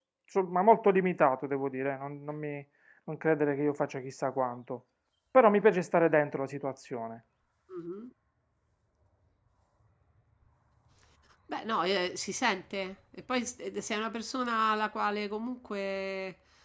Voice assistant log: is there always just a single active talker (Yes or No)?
Yes